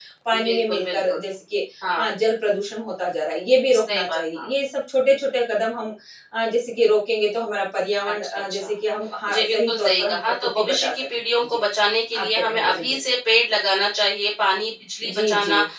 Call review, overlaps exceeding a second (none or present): present